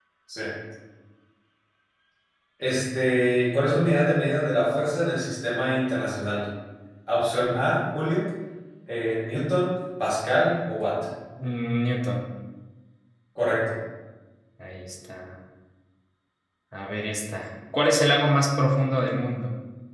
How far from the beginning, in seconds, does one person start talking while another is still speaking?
none

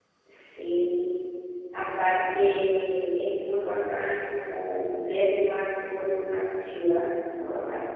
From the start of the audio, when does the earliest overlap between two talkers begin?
none

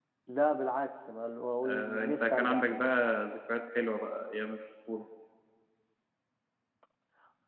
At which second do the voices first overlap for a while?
1.6 s

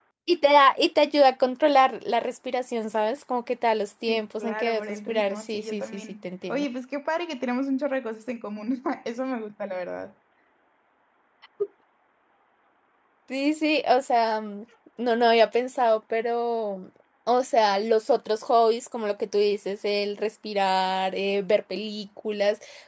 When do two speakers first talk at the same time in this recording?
4.1 s

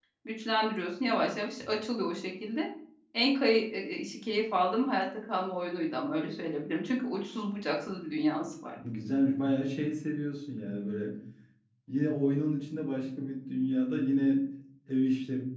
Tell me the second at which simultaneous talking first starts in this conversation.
none

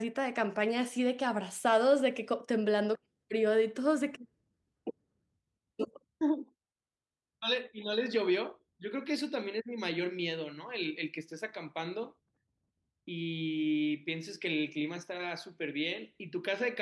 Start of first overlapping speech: none

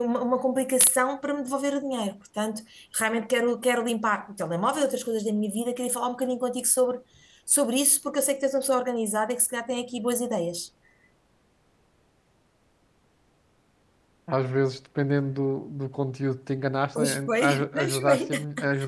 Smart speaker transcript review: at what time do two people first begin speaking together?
17.0 s

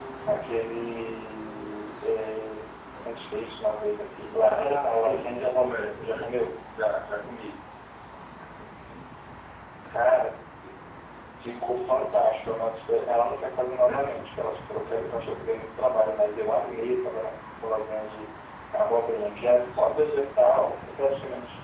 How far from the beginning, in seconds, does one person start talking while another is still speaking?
4.4 s

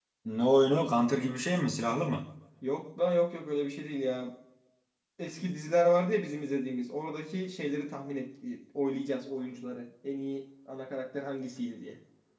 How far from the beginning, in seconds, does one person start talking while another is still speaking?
none

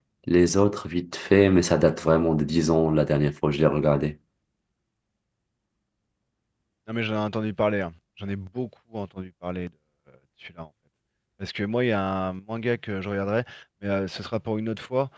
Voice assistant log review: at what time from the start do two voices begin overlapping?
none

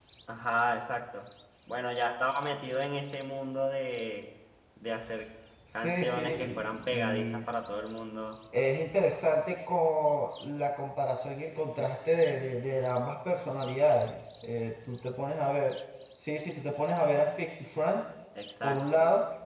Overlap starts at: 5.8 s

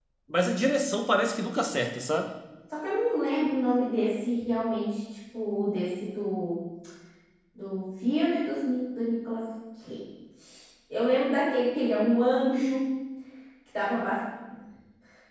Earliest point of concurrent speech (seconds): none

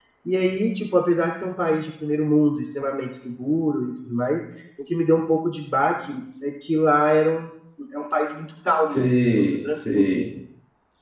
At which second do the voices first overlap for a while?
8.9 s

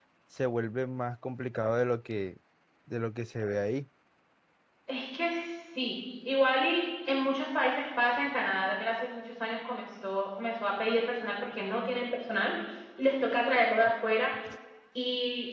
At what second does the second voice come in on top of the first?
none

